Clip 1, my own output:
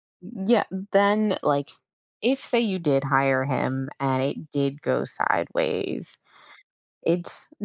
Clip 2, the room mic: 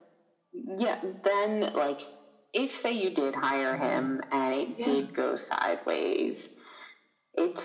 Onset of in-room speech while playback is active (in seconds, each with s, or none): 3.7 s